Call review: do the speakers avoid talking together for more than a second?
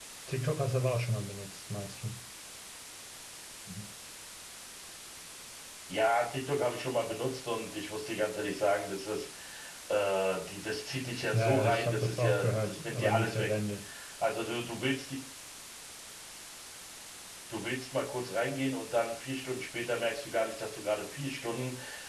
No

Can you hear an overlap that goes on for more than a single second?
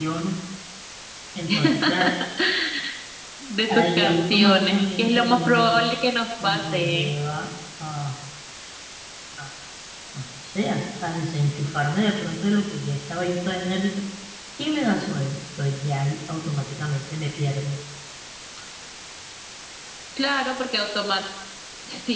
Yes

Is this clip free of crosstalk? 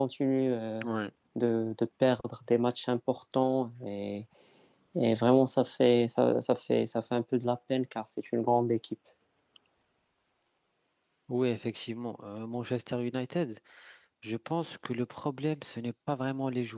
Yes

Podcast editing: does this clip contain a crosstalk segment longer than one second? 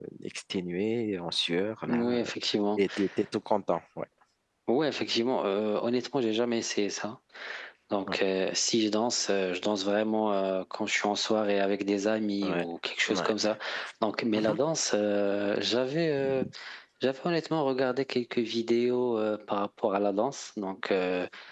No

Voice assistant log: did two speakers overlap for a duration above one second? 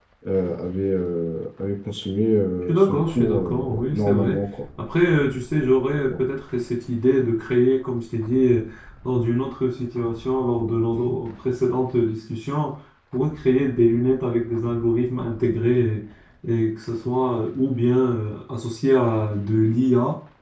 Yes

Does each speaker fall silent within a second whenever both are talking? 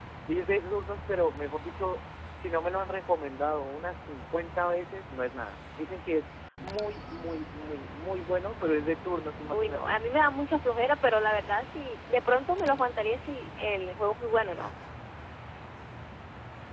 Yes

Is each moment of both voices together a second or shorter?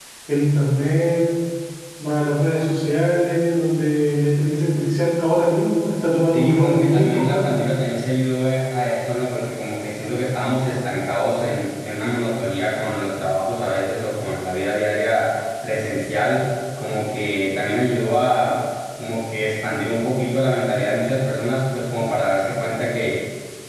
No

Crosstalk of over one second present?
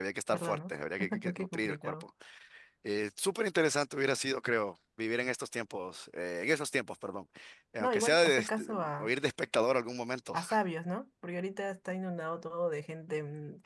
Yes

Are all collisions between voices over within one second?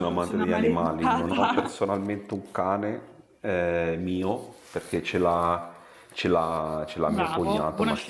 No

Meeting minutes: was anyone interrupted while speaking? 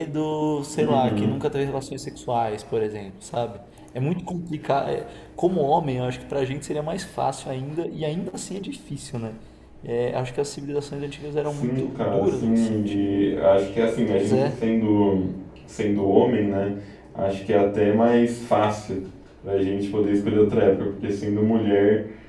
Yes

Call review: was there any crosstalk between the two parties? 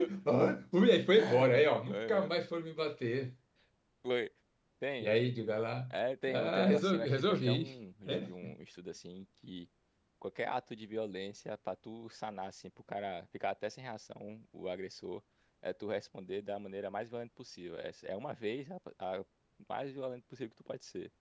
Yes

